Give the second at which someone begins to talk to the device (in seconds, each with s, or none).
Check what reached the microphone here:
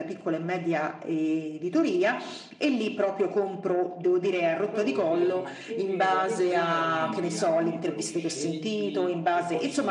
4.6 s